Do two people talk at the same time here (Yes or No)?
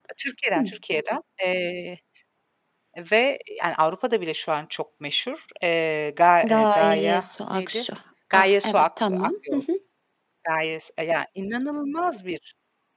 Yes